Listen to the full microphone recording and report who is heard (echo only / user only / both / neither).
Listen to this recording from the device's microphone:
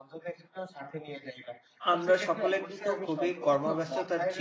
both